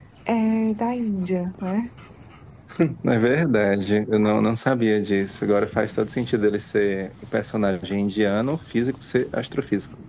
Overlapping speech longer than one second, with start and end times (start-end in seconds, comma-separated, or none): none